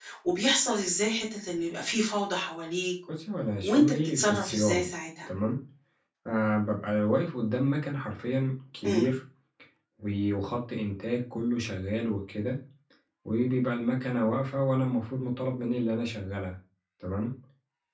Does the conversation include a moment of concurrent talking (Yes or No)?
Yes